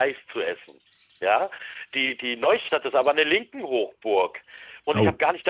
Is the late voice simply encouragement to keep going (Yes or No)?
Yes